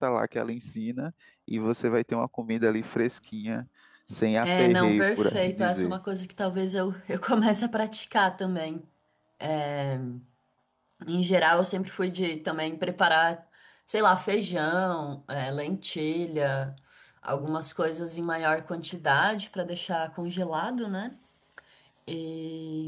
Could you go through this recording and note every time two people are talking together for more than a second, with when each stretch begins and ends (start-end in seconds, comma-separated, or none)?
4.4-6.0